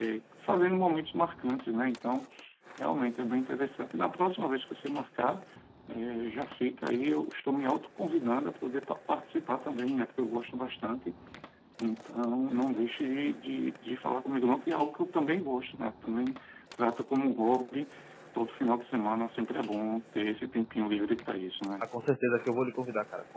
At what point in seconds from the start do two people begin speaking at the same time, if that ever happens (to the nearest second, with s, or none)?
none